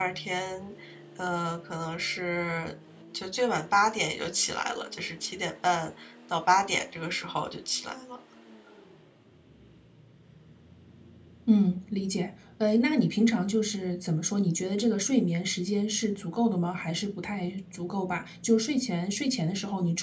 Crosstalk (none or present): none